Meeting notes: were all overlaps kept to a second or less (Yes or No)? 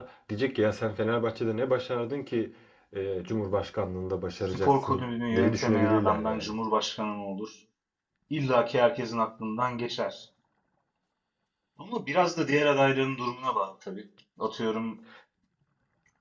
No